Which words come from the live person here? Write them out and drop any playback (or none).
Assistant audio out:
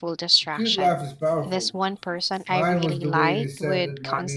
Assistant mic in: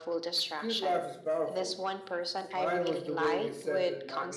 none